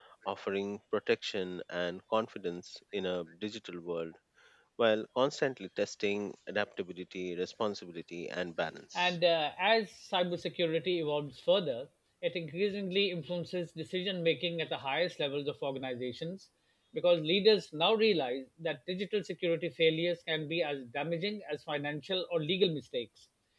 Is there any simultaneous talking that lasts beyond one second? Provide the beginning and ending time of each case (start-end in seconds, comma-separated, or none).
none